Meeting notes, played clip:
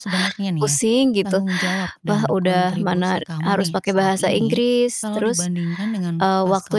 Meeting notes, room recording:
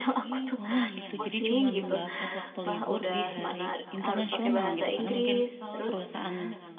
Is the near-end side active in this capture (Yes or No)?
Yes